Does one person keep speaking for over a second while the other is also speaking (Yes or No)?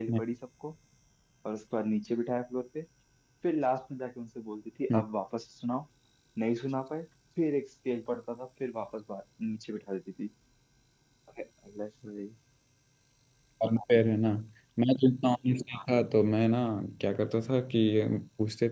No